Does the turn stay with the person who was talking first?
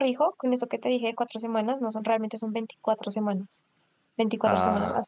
Yes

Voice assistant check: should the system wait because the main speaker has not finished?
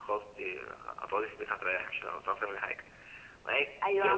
No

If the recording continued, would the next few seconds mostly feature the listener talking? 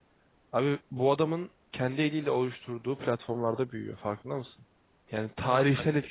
No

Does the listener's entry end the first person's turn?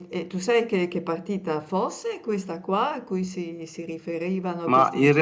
Yes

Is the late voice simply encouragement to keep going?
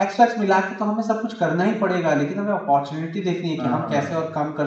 Yes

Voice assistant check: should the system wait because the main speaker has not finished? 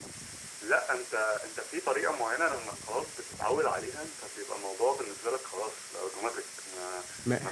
Yes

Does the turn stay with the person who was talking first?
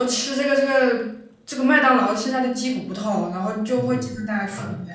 No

